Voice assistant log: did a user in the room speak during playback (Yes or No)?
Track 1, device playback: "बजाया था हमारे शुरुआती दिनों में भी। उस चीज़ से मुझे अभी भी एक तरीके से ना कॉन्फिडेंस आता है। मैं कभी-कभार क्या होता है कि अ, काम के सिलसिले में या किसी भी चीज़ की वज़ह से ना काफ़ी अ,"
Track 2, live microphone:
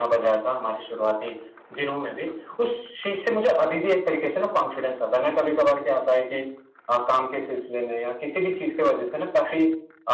No